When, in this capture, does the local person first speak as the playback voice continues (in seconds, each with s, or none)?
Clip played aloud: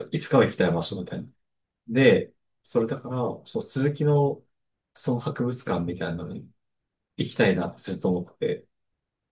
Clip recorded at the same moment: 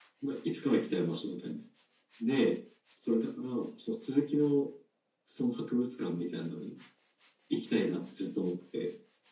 none